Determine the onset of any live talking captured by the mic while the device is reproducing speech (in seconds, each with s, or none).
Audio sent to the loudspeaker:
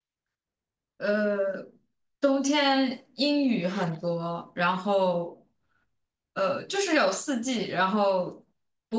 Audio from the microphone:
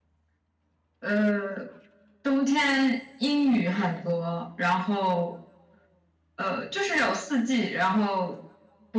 none